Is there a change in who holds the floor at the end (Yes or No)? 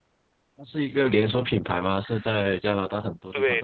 Yes